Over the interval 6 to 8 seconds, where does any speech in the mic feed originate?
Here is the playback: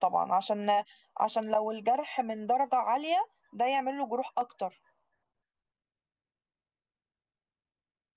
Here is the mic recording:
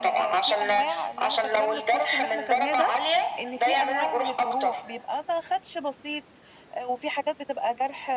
user only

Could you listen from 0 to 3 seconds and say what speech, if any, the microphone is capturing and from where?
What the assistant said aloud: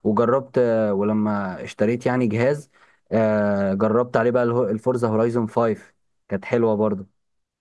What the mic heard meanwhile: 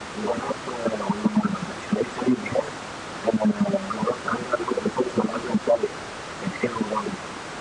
echo only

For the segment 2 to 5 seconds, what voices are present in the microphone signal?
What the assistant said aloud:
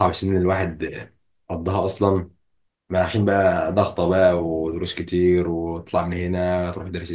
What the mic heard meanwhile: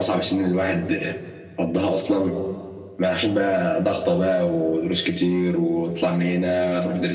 echo only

